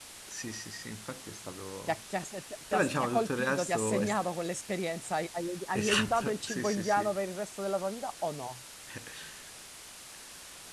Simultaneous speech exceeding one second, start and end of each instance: 2.7-4.3, 5.8-7.1

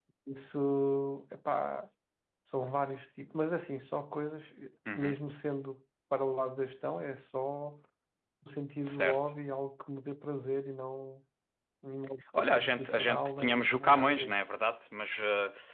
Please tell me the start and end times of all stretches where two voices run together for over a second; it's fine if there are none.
12.4-14.4

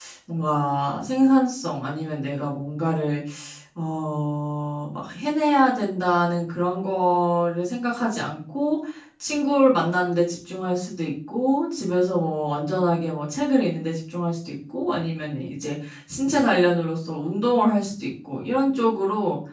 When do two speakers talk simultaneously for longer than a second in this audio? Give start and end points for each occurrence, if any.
none

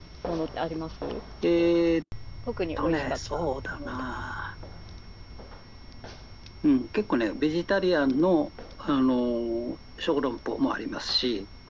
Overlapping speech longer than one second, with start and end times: 2.8-4.0

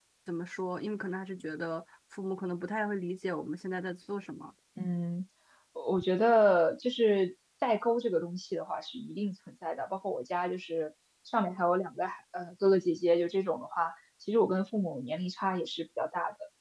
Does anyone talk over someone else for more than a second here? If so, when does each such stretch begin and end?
none

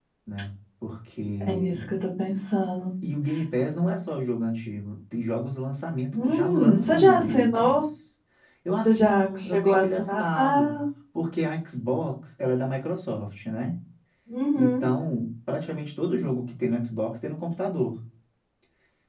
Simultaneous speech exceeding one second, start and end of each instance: 6.1-7.8, 8.8-10.8

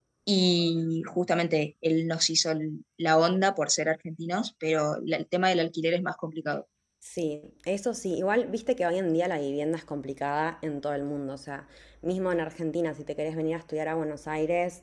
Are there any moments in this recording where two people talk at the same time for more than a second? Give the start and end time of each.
none

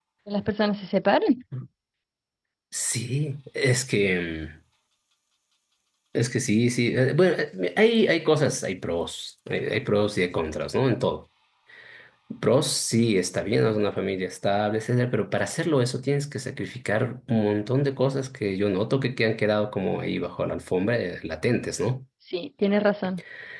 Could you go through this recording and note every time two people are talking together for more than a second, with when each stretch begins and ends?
none

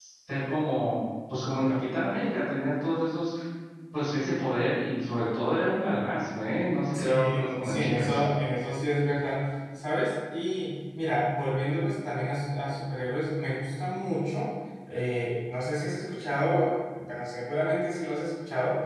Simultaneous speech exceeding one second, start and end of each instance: 6.9-8.2

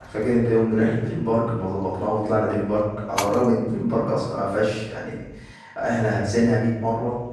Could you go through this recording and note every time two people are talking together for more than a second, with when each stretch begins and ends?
none

